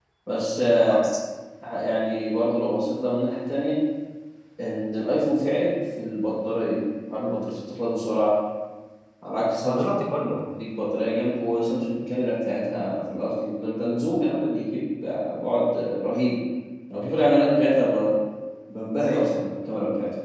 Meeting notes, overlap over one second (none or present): none